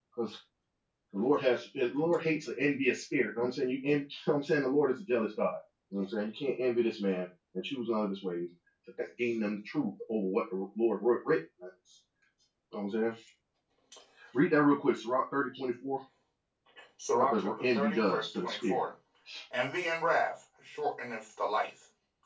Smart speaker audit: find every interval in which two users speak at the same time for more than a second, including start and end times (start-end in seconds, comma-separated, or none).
17.2-18.8